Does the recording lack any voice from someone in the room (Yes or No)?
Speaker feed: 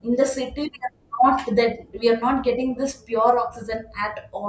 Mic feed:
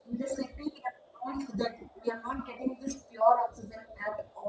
Yes